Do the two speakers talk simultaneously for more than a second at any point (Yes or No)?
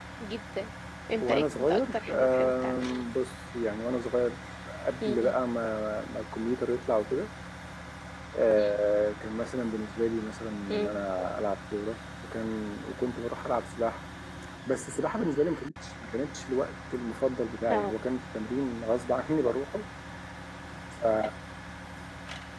Yes